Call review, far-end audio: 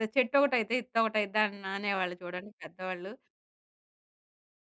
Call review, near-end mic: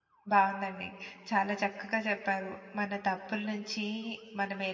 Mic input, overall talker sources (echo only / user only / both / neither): user only